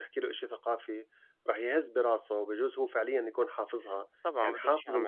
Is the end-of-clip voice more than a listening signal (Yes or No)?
Yes